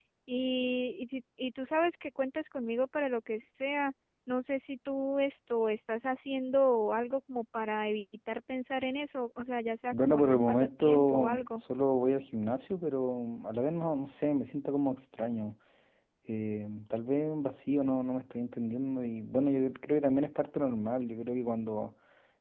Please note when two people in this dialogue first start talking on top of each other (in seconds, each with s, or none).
9.9 s